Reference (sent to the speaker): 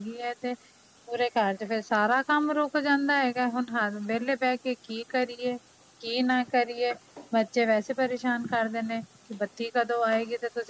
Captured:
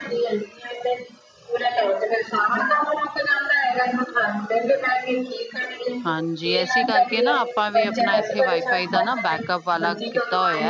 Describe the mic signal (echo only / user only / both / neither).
both